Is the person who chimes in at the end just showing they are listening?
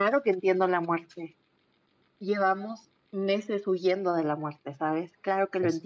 Yes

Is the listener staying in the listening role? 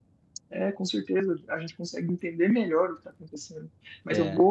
Yes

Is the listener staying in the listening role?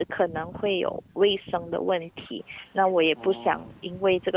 Yes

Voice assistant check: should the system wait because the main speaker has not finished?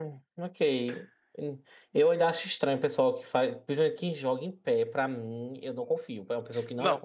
No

